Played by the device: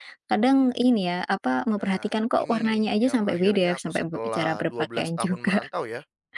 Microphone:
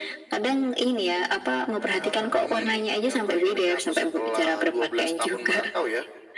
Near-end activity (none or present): present